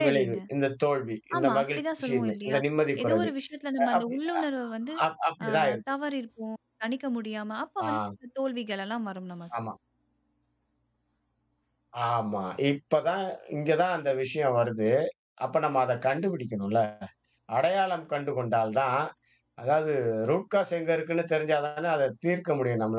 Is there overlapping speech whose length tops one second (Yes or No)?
Yes